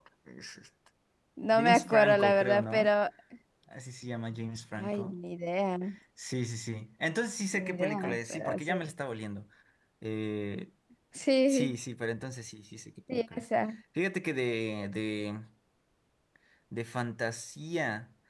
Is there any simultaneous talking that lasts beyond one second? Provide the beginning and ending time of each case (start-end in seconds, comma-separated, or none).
1.6-2.9, 7.5-8.7